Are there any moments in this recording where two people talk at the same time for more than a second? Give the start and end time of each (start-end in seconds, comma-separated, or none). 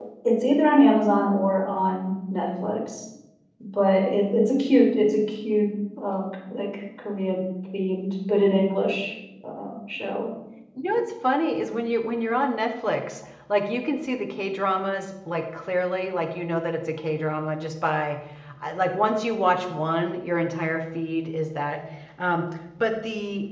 none